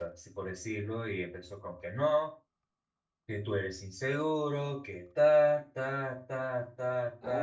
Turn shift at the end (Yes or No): Yes